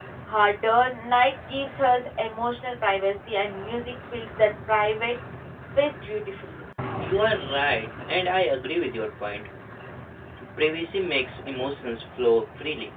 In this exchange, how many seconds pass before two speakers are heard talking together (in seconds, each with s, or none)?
none